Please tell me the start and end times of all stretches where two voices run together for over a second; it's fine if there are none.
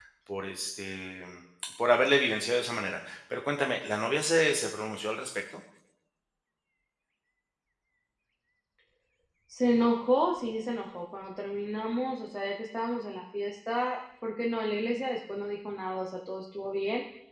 none

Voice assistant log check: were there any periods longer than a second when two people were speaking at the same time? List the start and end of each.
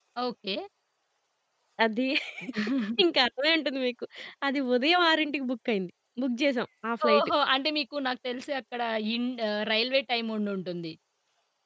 none

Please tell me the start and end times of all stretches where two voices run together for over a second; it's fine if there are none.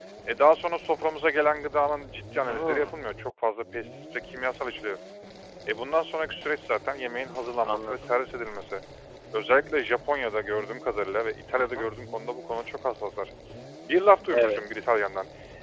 none

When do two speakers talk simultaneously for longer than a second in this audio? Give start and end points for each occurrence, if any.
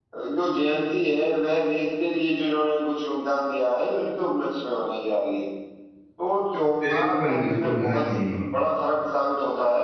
6.8-8.1

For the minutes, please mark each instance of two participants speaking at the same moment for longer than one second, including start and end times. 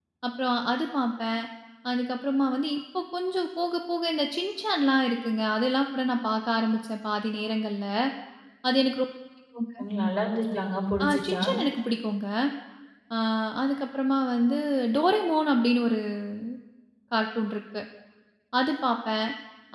none

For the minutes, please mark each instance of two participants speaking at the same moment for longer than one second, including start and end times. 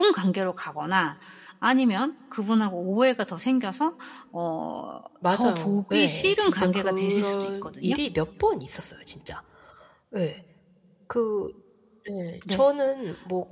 5.3-8.0

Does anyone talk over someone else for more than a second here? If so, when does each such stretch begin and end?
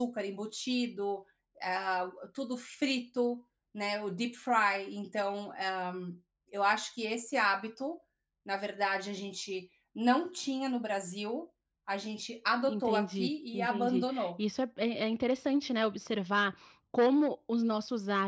12.7-14.4

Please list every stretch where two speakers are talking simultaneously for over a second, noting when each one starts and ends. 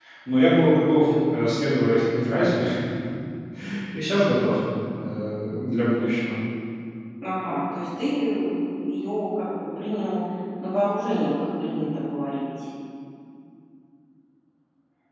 none

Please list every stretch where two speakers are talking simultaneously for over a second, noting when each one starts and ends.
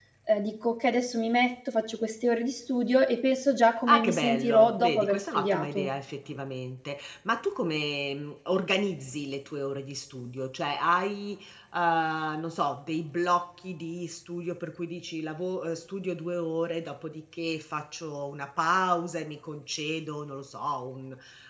3.9-5.9

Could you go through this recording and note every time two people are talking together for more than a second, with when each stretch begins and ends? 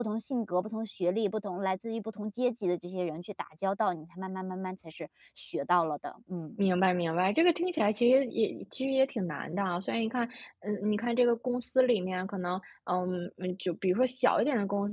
none

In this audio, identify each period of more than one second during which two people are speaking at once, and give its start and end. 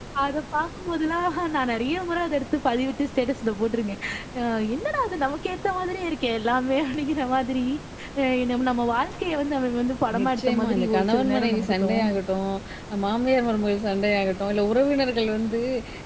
10.2-12.2

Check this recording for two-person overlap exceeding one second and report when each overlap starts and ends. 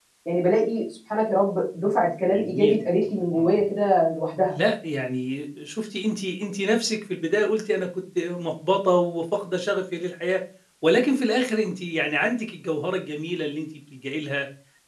2.2-3.5

